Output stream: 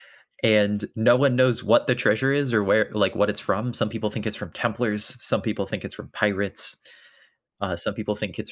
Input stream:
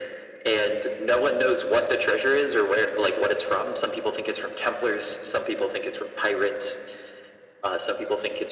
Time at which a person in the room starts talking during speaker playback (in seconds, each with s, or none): none